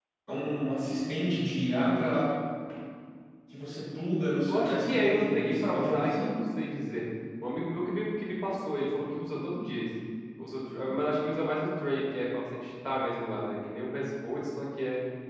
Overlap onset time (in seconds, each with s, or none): 4.5 s